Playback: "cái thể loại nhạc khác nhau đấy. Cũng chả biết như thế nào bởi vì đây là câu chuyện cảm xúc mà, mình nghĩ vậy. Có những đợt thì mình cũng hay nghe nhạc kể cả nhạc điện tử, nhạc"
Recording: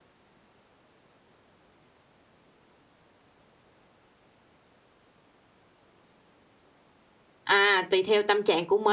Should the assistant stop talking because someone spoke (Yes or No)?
Yes